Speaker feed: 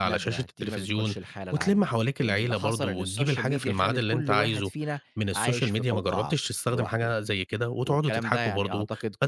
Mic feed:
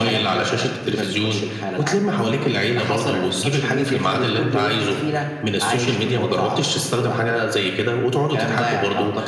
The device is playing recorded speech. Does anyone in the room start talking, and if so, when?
none

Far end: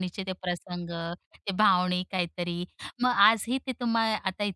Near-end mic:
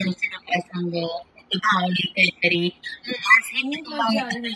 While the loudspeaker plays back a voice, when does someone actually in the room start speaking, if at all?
3.6 s

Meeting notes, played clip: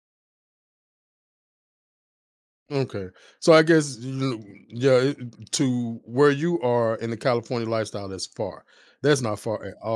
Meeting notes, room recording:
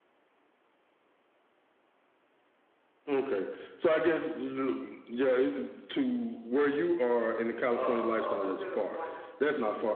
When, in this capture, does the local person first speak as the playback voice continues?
7.7 s

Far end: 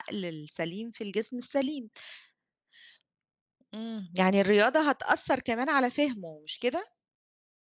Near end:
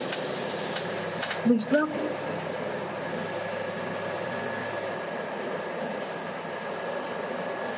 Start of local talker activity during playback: 1.5 s

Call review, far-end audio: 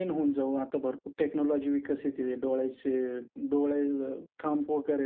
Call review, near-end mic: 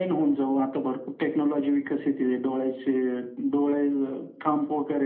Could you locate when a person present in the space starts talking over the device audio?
none

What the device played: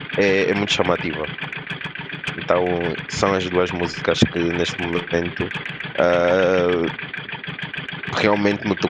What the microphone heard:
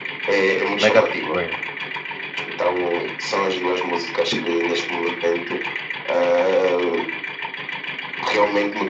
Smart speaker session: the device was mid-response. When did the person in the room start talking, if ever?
0.7 s

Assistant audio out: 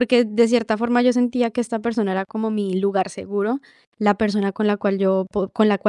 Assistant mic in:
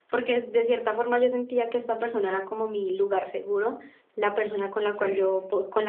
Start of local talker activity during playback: 4.9 s

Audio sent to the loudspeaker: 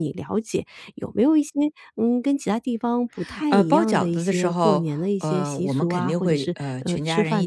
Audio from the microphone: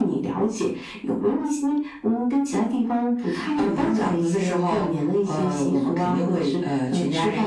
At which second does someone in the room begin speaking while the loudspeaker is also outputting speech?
none

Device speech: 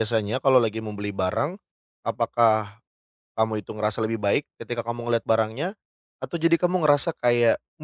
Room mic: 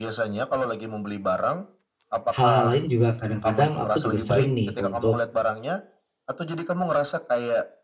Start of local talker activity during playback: 2.3 s

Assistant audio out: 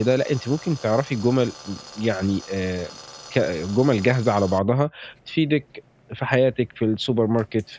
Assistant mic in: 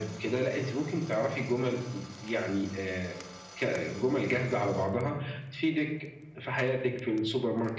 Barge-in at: none

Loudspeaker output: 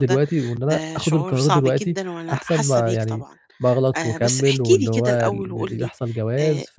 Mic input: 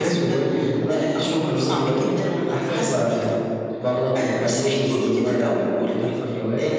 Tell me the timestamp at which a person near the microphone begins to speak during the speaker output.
none

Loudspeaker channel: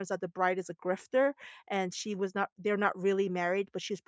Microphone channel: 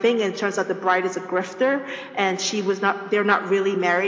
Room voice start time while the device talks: none

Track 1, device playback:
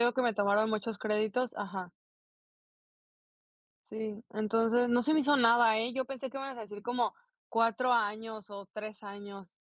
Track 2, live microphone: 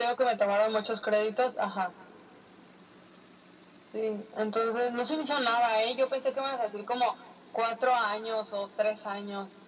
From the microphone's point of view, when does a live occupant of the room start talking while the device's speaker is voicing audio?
none

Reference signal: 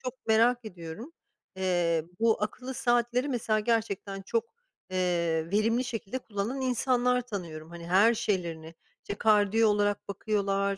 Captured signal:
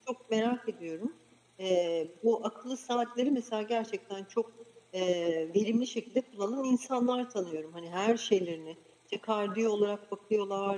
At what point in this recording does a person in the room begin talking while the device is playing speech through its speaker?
none

